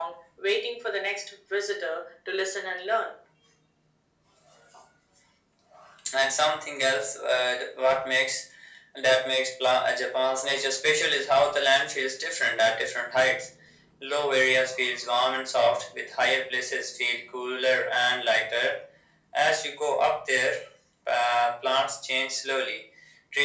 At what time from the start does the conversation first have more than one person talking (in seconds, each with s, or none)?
none